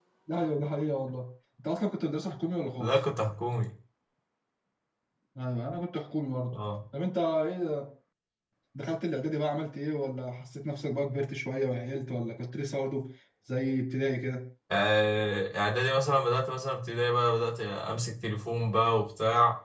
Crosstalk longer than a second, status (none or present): none